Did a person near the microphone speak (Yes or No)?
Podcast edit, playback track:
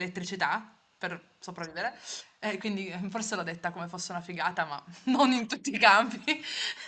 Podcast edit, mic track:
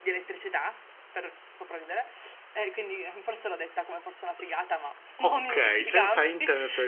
Yes